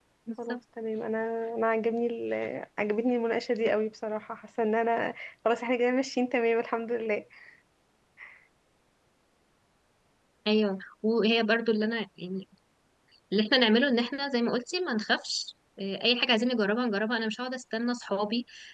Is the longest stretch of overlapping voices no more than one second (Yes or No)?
Yes